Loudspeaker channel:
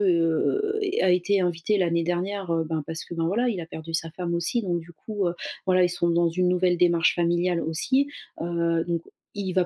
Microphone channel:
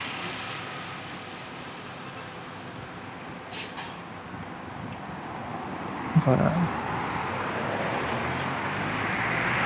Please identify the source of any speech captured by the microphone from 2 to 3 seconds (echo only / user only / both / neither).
neither